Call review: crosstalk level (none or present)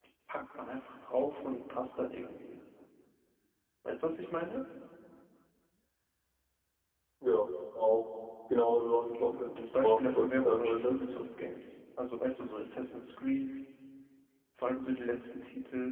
present